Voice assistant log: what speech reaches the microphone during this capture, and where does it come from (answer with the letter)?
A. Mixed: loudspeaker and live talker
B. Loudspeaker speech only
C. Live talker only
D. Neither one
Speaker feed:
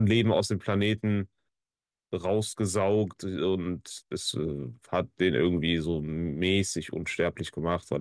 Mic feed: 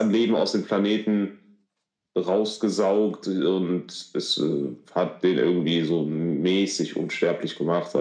B